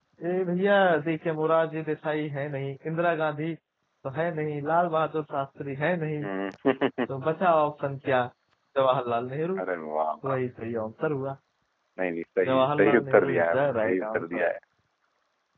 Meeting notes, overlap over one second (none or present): present